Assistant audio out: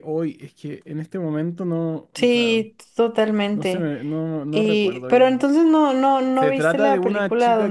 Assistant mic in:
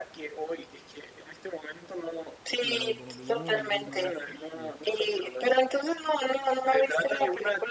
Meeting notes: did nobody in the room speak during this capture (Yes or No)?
No